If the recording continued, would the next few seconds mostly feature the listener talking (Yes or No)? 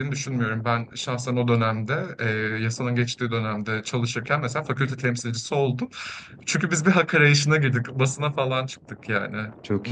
No